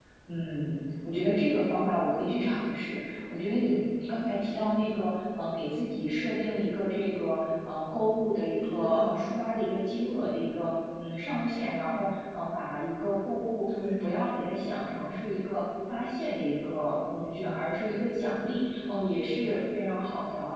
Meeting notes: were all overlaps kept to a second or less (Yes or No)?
Yes